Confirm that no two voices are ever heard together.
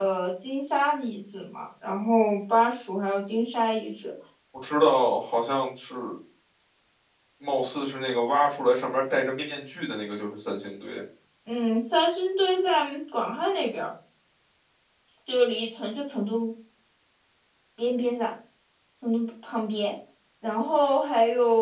Yes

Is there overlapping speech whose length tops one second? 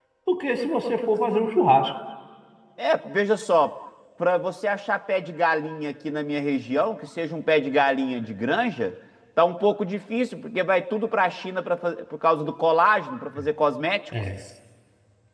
No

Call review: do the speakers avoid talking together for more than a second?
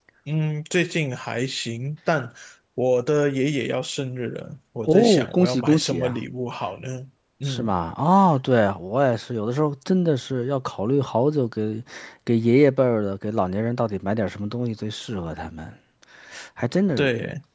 No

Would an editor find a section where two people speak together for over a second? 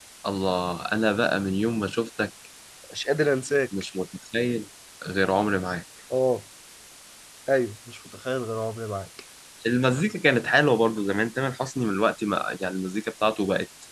No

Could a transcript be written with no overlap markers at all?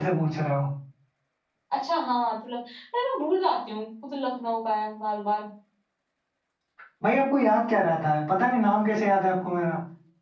Yes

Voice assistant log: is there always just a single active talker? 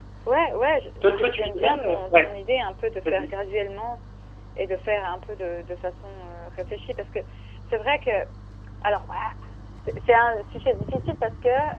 No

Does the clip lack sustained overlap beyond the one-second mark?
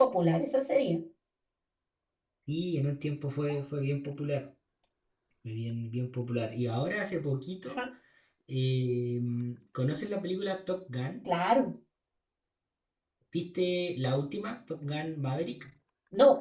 Yes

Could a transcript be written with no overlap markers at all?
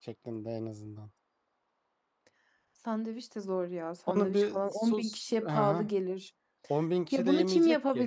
No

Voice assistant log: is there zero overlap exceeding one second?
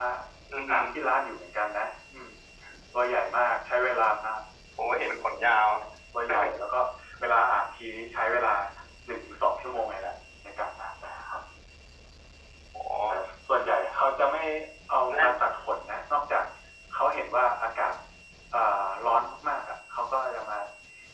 Yes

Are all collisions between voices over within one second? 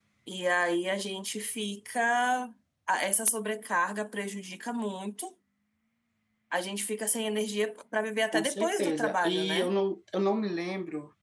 No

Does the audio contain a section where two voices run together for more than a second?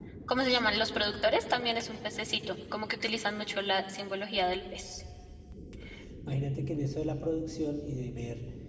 No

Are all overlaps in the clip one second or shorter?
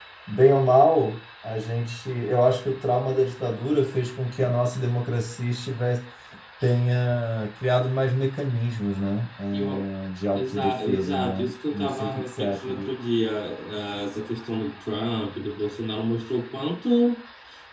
No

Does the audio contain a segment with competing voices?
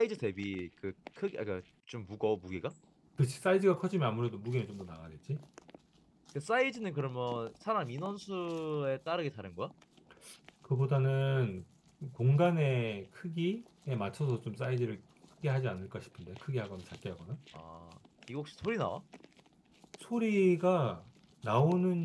No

